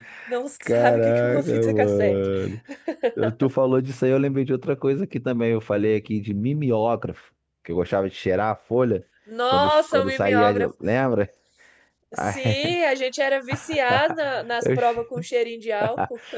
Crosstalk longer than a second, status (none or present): present